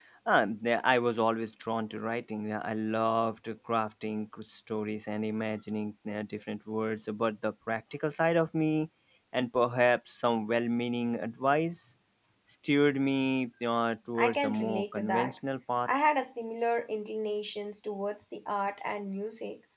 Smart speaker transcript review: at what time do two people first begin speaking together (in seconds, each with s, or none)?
14.2 s